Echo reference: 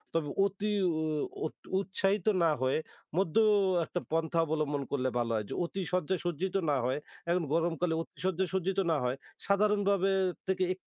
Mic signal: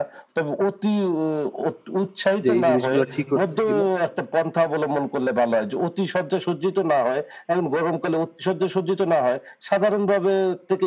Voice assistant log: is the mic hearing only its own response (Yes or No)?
No